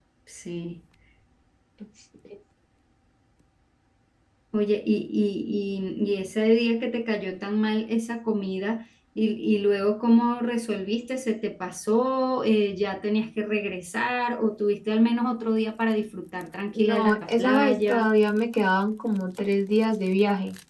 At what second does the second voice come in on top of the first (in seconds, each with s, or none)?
16.8 s